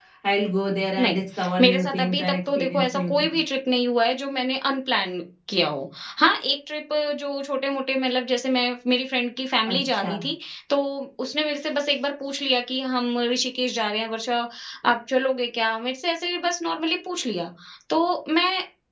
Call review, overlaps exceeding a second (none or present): present